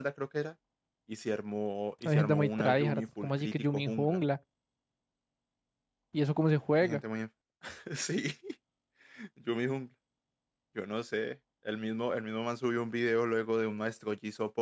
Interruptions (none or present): present